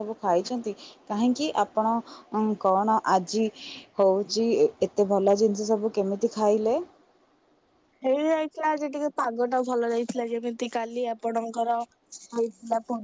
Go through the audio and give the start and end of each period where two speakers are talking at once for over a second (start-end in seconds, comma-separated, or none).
none